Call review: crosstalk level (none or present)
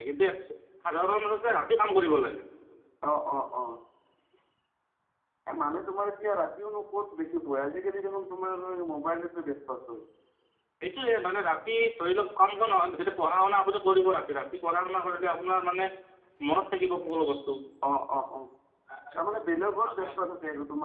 none